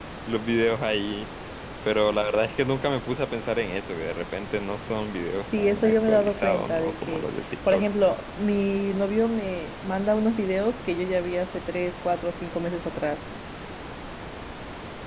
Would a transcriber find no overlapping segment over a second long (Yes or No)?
No